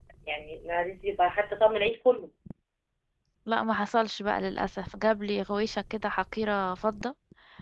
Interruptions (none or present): none